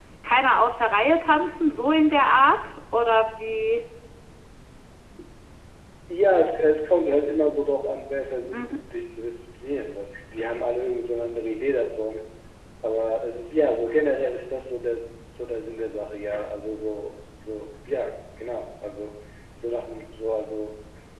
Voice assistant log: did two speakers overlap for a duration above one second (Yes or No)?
No